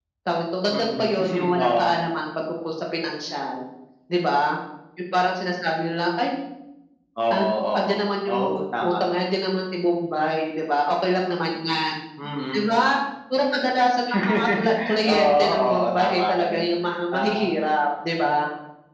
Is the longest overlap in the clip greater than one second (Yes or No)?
Yes